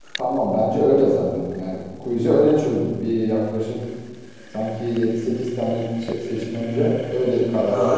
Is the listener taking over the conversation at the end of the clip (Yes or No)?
Yes